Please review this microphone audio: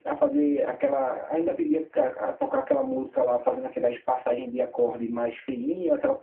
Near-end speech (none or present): none